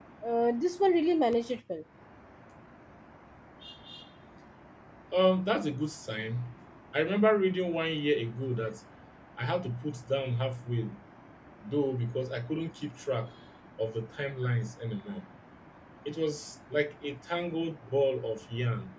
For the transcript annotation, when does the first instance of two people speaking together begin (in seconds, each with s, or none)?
none